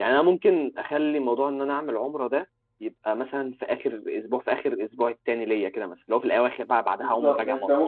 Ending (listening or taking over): taking over